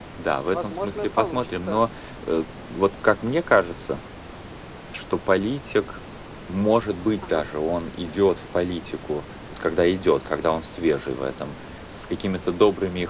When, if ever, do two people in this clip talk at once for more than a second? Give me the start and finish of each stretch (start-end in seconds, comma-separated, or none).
0.5-1.8